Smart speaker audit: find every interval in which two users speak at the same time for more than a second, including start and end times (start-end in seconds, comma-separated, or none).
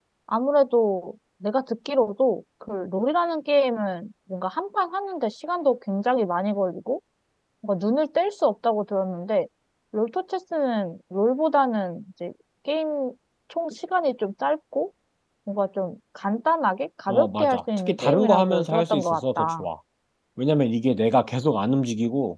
17.1-19.7